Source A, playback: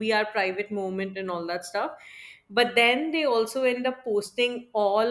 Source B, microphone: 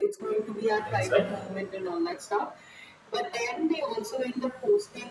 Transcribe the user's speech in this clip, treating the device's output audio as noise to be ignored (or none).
things, right?